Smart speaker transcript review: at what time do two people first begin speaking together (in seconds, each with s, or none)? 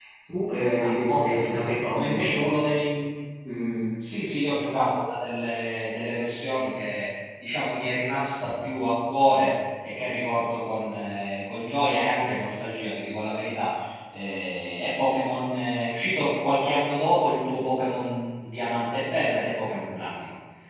0.8 s